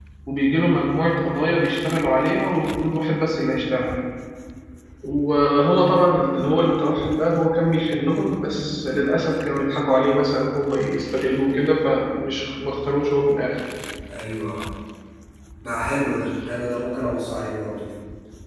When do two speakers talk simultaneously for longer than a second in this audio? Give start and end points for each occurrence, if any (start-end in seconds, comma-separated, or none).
none